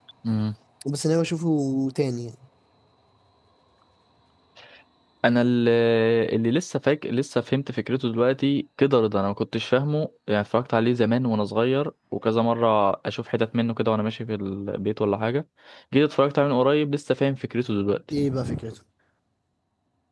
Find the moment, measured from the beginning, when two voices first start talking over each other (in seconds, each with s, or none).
none